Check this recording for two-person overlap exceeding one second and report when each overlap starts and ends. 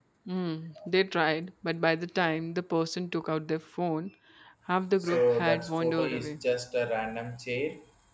5.0-6.3

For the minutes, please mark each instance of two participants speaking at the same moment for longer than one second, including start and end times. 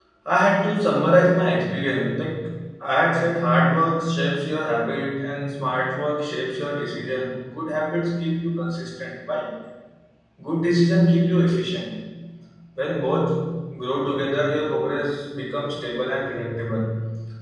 none

